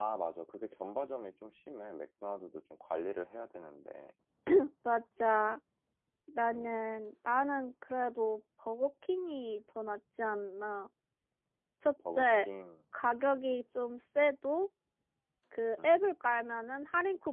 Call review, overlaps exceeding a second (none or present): none